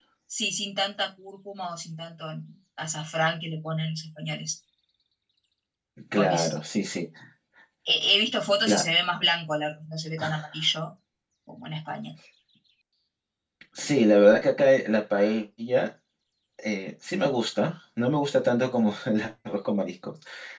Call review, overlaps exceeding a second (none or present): none